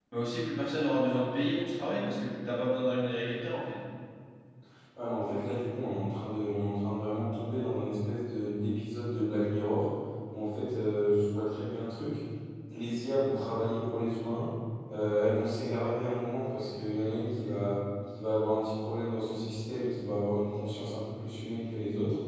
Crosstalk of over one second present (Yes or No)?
No